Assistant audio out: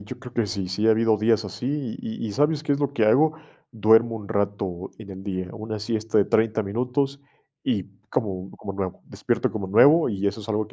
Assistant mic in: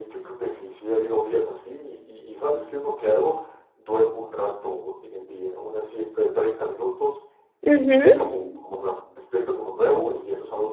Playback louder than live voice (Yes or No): No